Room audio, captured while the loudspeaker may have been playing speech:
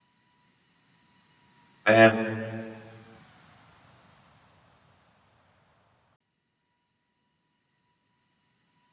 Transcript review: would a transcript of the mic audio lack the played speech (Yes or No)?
Yes